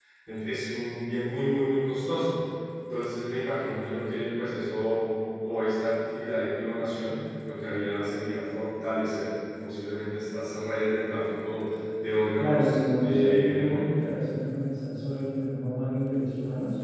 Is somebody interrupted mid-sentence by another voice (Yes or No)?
Yes